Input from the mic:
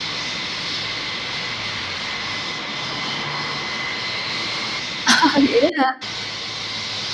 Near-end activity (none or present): present